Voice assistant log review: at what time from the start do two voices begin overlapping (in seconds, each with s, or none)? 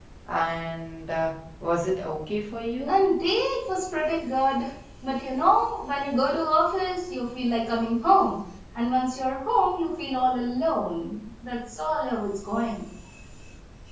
none